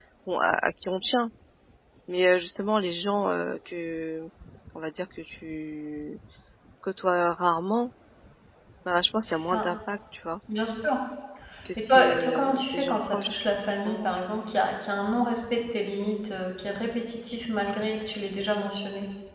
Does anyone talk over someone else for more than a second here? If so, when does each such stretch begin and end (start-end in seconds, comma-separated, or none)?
11.9-13.4